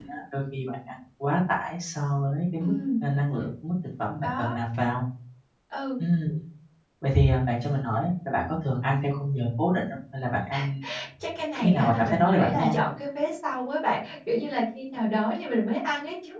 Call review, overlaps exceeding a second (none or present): present